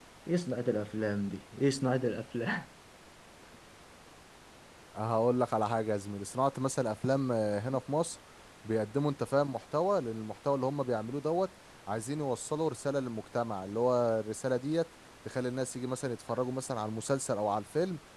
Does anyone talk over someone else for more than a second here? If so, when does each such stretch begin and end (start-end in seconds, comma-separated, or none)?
none